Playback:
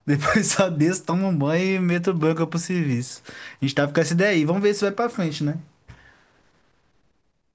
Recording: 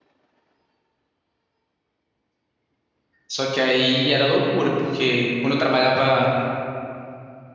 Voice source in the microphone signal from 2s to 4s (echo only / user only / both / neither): user only